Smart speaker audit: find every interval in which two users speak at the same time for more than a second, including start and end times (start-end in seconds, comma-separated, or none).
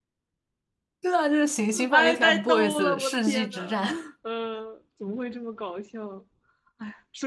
1.9-3.8